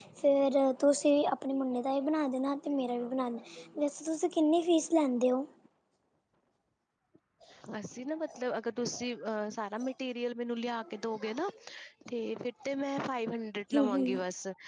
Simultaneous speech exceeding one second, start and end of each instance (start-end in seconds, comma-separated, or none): none